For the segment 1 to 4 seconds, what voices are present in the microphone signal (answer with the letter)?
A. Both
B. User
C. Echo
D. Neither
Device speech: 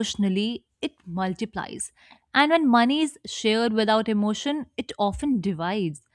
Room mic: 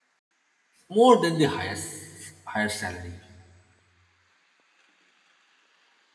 B